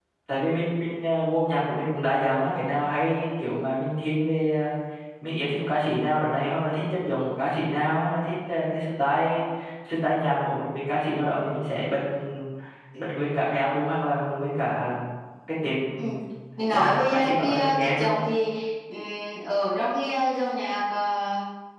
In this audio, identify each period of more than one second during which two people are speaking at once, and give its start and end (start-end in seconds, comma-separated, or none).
16.7-18.1